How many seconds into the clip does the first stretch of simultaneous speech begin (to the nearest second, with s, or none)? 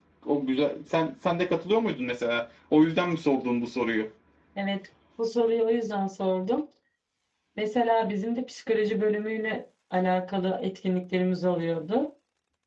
none